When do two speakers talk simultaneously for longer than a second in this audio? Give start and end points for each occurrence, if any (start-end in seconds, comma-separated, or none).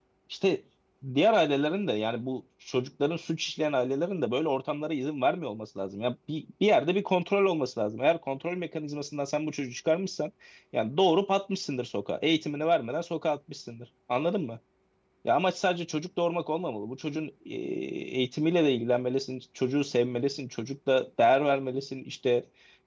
none